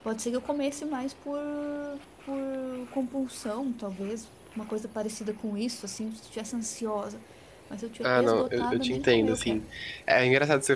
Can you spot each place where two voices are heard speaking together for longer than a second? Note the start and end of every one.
8.0-9.6

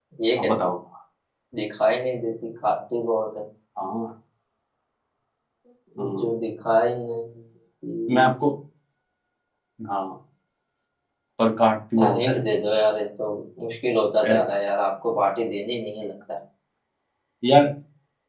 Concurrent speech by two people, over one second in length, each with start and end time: none

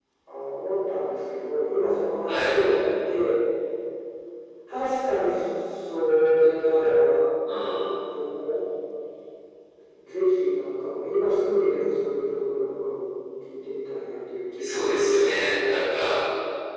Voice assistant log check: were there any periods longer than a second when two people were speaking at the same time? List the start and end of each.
14.6-15.9

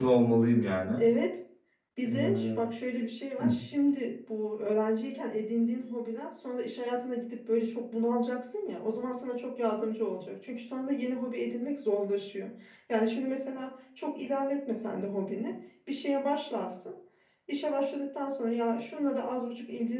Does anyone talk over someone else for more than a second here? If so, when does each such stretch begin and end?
none

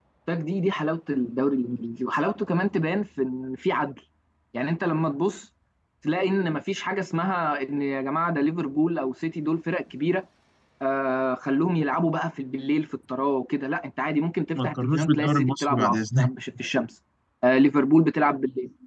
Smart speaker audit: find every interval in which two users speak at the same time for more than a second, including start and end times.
14.6-16.3

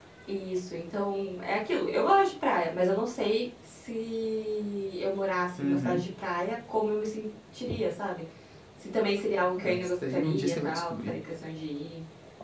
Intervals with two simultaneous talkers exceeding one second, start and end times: 9.6-11.1

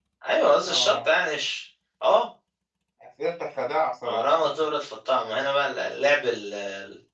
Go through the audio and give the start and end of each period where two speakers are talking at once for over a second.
none

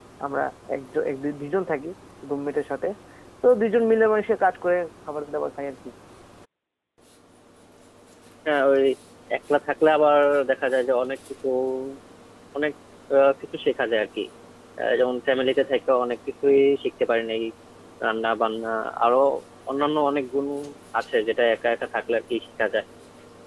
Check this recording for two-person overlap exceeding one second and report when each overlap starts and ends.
none

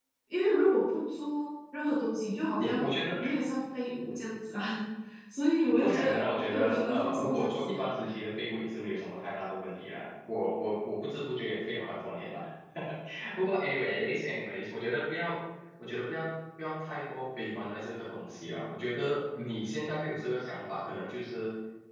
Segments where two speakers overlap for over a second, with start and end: 5.8-8.0

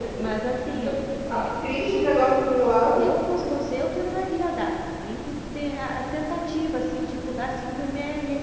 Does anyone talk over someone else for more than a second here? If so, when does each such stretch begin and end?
none

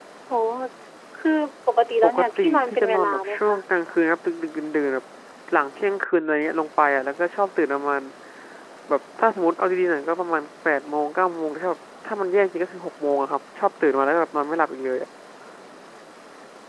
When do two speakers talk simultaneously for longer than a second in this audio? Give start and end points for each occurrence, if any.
2.0-3.6

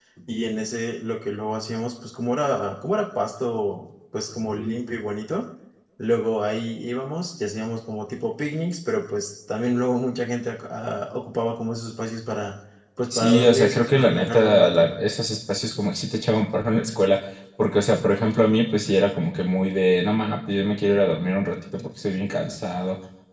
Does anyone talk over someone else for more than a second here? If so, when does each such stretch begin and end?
13.1-14.9

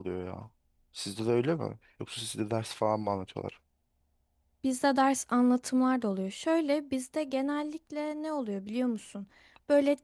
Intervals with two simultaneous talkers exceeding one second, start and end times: none

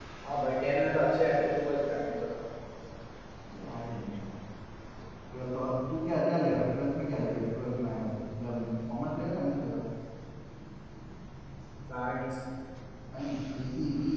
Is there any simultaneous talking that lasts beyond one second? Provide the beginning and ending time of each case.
none

